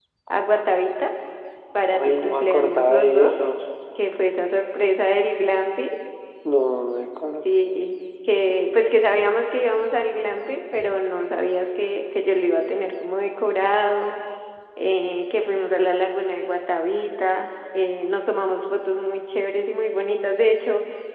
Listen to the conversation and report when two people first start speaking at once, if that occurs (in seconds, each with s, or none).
1.9 s